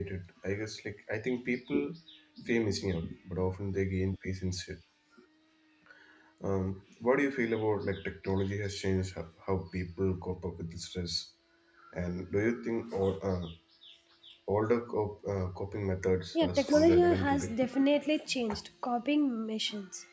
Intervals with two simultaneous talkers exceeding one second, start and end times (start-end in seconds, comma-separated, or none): 16.4-17.6